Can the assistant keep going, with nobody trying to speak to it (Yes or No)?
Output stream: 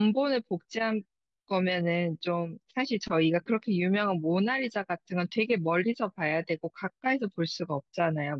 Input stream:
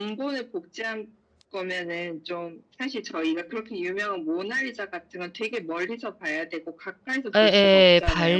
No